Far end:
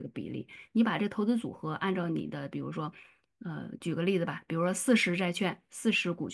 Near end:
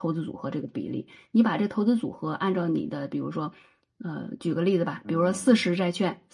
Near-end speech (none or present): present